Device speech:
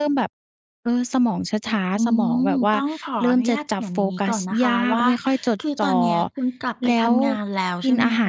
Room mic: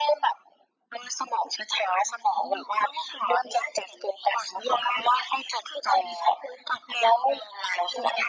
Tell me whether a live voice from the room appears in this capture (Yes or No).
No